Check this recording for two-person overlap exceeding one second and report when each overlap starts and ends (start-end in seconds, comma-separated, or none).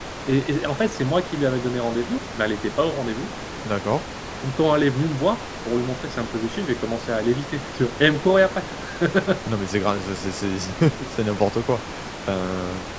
none